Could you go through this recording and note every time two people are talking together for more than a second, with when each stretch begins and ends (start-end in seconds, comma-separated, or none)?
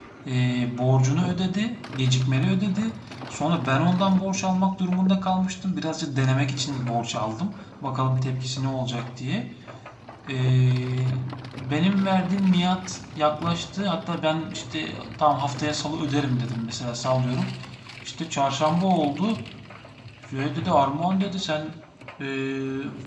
none